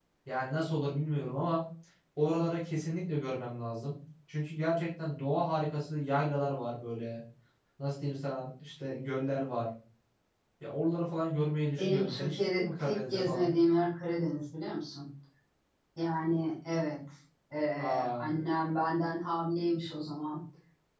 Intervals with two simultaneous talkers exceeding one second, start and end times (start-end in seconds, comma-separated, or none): 11.8-13.5